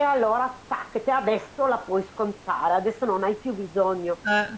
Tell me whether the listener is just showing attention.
Yes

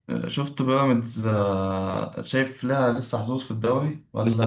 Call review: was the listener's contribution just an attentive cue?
No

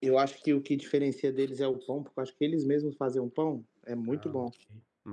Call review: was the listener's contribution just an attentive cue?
No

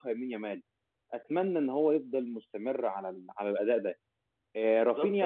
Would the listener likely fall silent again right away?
No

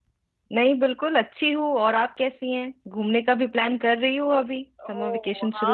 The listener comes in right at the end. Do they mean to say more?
Yes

